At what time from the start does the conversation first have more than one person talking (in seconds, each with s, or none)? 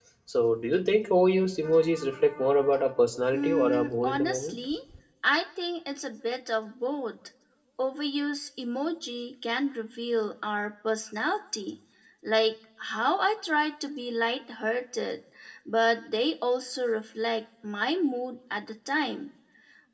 3.3 s